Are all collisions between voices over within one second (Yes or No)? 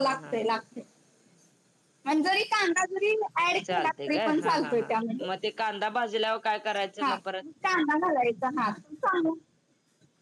No